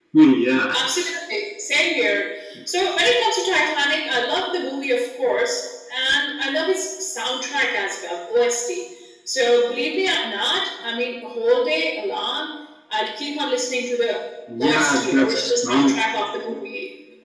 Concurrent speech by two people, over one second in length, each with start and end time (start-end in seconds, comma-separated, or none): 14.6-16.0